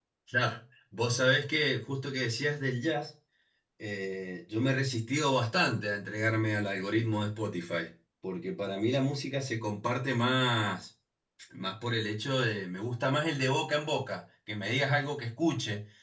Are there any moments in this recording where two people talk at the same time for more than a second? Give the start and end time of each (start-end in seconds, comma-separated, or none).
none